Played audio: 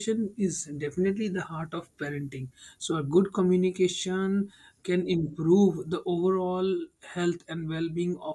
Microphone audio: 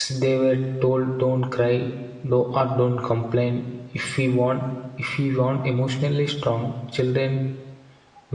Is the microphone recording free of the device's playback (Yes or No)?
Yes